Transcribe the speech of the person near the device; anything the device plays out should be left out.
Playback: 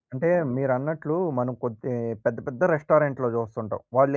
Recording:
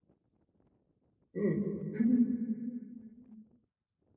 హ్మ్. హుహు.

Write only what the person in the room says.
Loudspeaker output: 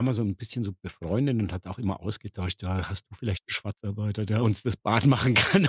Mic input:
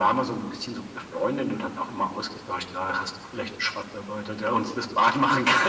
none

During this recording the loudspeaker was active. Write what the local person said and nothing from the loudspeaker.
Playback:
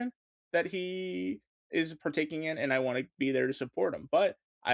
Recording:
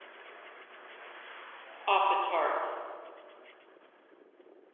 off the charts.

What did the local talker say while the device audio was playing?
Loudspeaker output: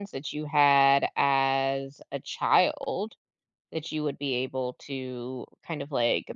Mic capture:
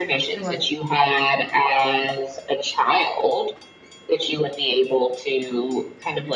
Right.

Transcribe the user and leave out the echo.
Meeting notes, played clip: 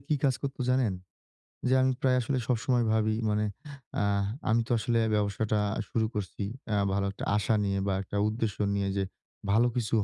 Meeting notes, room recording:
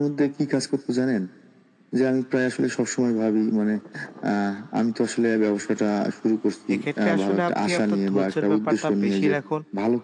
এক্ষেত্রে আসলে আপনি আপনার ধৈর্যের ব্যাপারটা বেশি রাখুন।

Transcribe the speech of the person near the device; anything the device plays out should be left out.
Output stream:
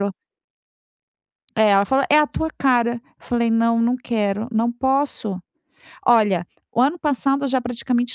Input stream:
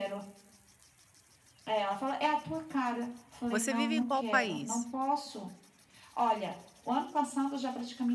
Você vive em qual país?

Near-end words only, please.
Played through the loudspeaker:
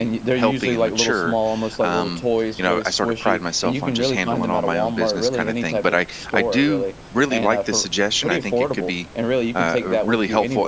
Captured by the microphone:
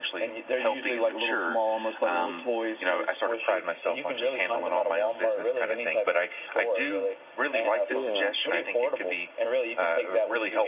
Yeah.

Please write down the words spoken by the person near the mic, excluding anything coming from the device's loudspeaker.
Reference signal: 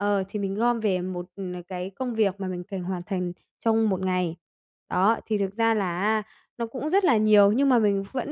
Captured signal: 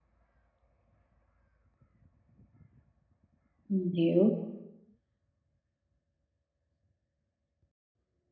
mình hiểu.

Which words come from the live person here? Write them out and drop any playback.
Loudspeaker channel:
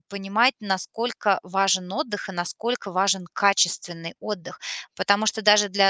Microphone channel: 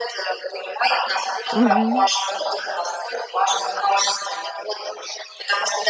Мгм.

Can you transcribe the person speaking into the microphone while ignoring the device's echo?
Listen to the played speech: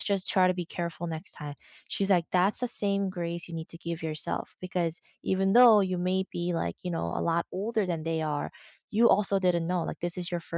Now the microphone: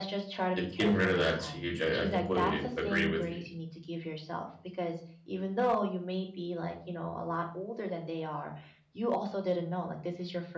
it's getting rid of that. It's huge, I I completely agree with you

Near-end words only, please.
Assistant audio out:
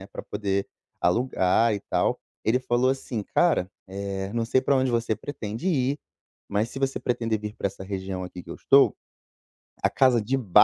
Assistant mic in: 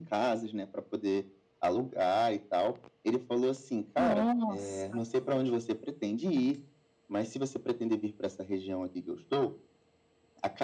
Nossa.

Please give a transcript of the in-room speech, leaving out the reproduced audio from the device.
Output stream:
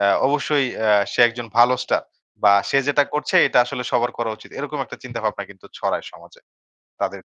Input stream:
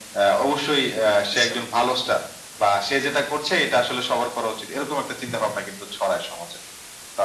আচ্ছা।

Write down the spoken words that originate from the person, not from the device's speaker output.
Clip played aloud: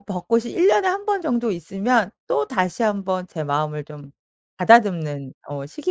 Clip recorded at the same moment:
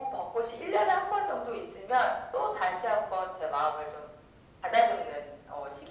none

